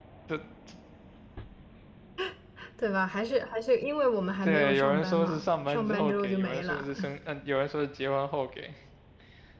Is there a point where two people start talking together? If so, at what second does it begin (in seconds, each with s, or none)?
4.3 s